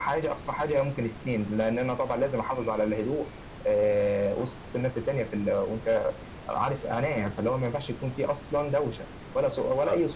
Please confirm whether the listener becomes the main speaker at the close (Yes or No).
Yes